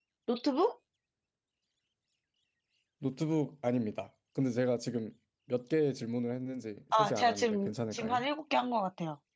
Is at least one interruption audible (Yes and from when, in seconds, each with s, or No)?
Yes, from 6.9 s